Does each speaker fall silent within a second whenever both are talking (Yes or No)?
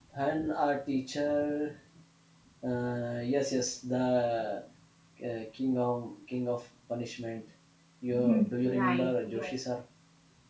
No